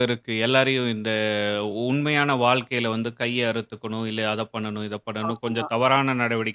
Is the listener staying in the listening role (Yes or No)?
Yes